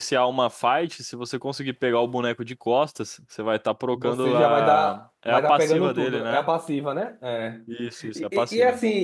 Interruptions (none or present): present